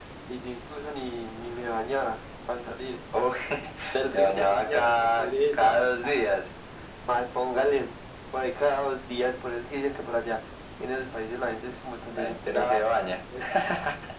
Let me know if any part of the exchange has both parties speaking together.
Yes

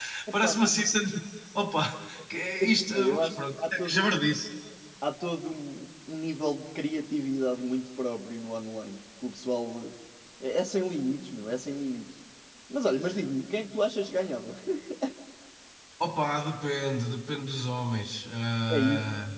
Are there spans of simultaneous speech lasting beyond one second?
Yes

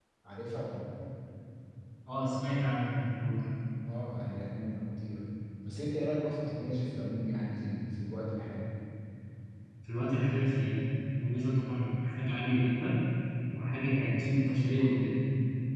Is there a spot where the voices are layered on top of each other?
No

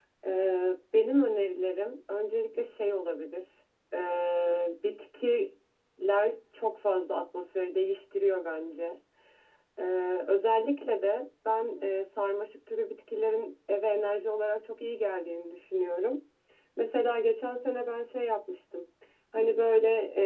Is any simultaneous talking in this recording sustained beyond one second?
No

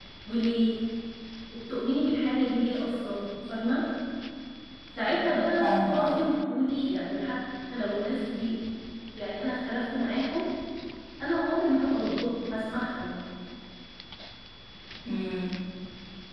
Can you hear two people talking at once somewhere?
Yes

